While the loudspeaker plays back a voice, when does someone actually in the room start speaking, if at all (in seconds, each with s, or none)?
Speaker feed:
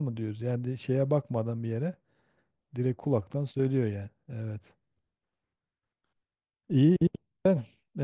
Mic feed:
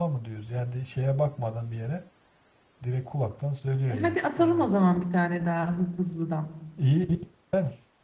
3.9 s